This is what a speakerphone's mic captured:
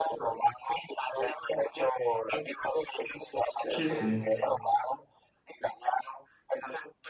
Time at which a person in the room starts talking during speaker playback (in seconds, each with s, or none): 3.7 s